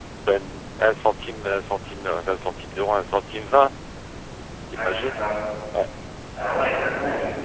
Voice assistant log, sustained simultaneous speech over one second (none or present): none